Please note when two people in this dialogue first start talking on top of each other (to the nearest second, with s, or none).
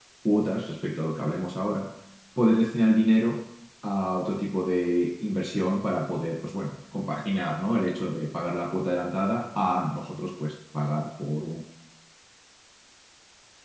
none